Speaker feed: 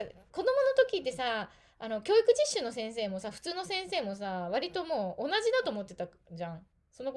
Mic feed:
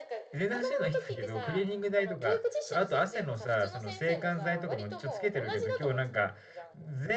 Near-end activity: present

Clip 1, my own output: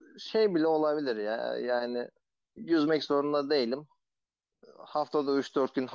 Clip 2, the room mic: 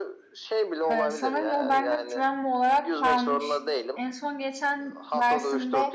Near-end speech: present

